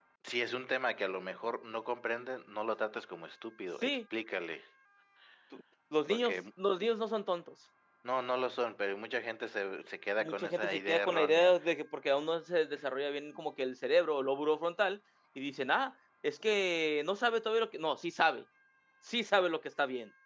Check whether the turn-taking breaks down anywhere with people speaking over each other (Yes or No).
Yes